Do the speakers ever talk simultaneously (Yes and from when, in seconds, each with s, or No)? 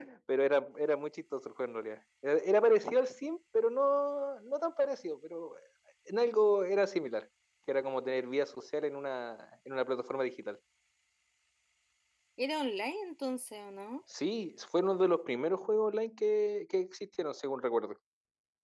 No